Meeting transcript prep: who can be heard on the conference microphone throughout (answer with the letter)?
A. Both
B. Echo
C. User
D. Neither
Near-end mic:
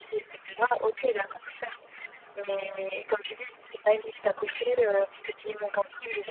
B